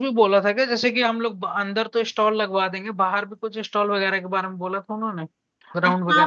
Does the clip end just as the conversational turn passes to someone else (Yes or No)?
Yes